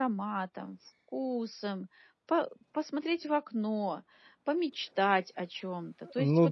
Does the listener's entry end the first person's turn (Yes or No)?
Yes